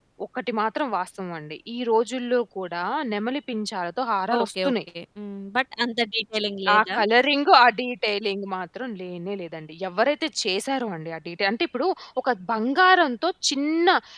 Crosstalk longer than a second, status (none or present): none